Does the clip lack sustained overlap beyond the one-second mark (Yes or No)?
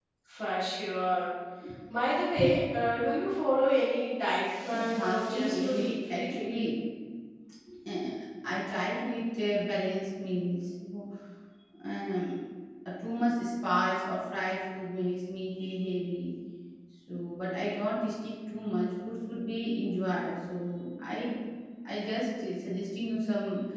No